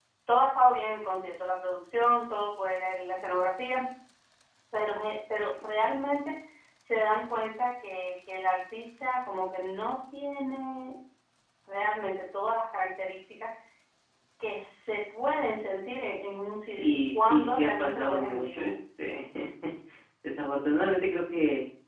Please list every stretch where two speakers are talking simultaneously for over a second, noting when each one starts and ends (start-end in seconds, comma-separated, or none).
16.7-18.7